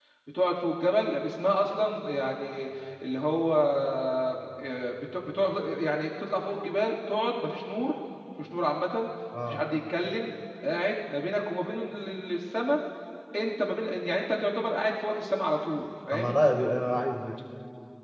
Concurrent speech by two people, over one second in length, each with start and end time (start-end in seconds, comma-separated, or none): none